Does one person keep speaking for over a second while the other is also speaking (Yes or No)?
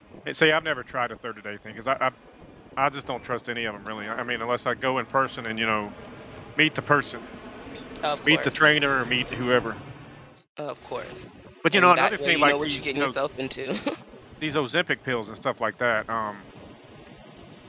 Yes